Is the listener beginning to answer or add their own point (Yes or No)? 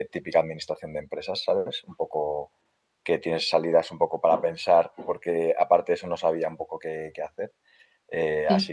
No